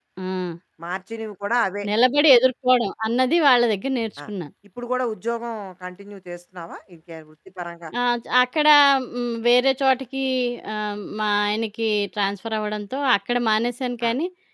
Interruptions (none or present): none